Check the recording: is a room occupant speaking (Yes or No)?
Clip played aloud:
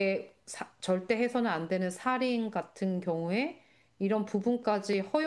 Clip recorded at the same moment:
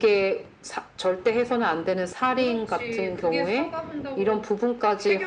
Yes